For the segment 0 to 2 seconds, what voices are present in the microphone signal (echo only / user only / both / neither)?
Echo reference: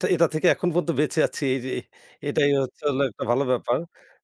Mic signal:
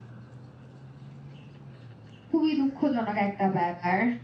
neither